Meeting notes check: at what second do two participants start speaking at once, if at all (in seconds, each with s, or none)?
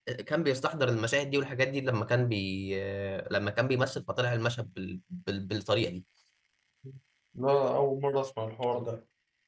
none